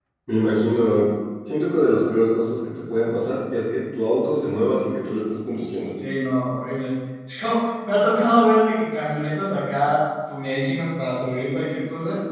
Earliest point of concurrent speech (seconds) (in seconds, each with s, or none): none